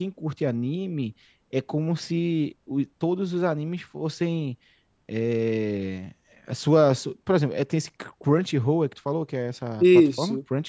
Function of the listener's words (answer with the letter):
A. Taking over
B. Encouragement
A